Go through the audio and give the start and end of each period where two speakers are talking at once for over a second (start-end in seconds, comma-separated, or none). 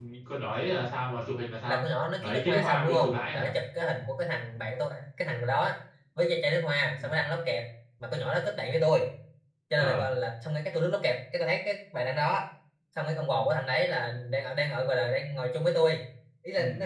2.2-3.5